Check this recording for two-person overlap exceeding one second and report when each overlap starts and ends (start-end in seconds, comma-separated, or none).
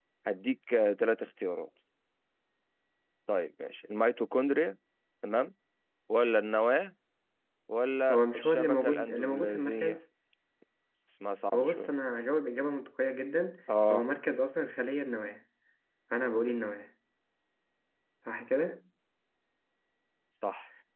8.1-10.0